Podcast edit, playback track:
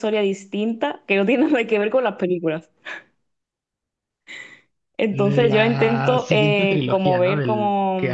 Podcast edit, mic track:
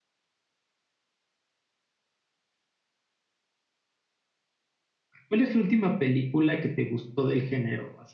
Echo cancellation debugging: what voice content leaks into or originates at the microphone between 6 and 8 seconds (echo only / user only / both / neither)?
user only